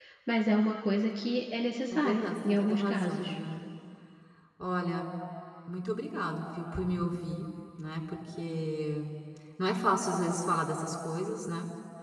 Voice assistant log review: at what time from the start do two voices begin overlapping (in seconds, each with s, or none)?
1.9 s